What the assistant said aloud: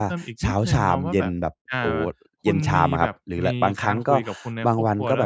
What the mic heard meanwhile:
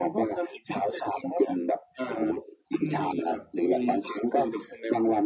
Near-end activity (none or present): none